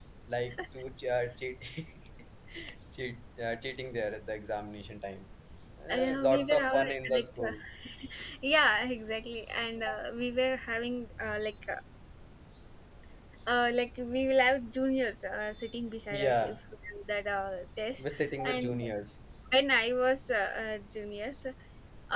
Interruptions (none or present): present